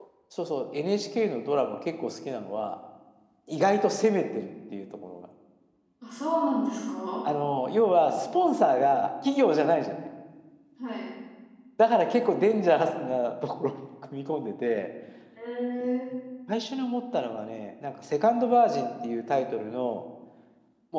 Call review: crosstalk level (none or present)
none